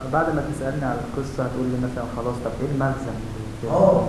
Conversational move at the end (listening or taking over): taking over